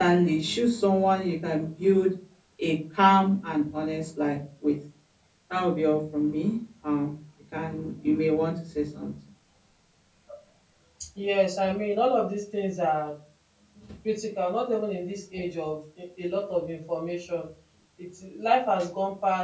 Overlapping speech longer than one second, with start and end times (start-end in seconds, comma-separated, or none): none